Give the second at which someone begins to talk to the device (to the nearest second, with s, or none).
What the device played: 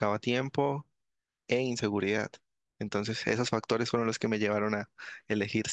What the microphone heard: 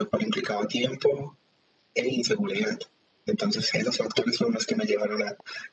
none